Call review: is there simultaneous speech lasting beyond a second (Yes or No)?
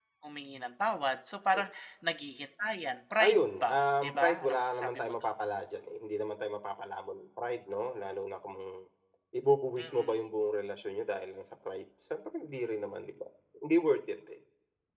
Yes